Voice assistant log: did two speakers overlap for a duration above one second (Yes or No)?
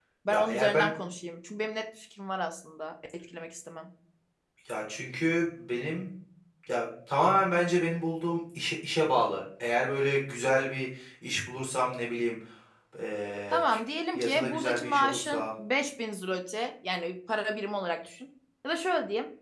Yes